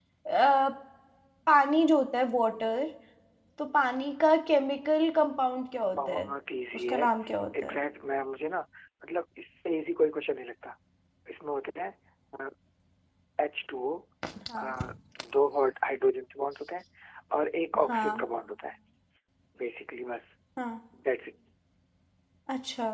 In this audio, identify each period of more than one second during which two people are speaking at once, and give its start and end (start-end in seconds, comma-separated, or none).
none